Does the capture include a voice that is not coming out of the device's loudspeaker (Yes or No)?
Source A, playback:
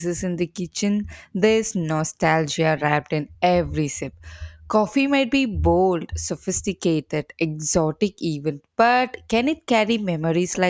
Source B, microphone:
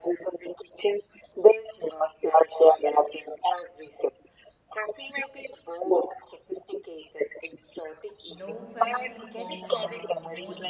Yes